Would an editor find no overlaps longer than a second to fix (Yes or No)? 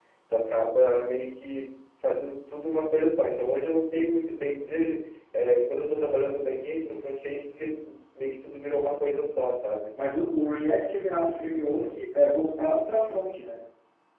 Yes